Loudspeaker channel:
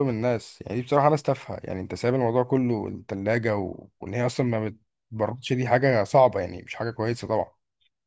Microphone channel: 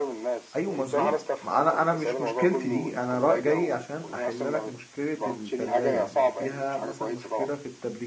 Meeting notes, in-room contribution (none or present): present